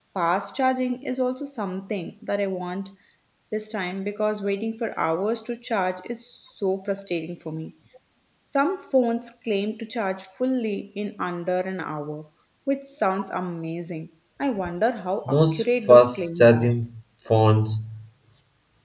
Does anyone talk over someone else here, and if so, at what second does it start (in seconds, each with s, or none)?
15.3 s